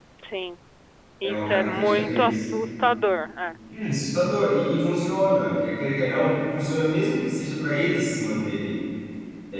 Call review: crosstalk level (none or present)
present